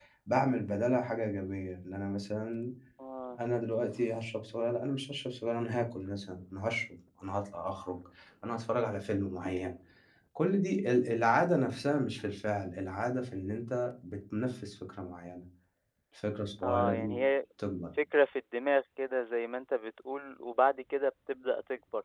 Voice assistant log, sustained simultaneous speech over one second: none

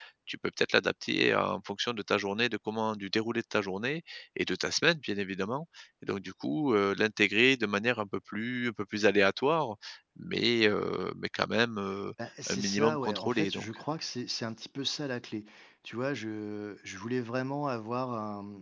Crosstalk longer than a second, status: present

